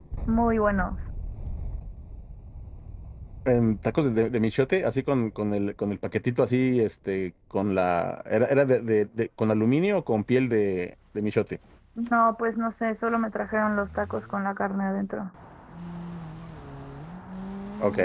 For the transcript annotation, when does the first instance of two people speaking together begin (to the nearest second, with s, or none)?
none